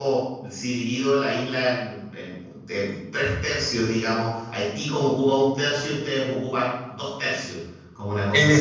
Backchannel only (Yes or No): No